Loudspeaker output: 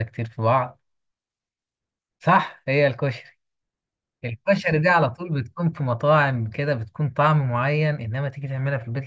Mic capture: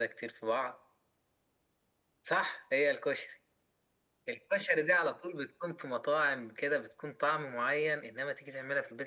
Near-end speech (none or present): none